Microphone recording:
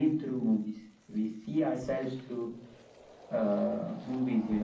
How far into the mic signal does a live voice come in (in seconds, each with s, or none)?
none